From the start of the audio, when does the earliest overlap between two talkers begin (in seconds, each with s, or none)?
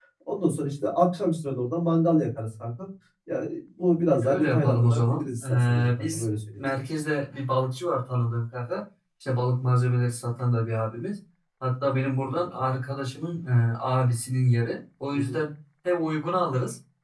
4.2 s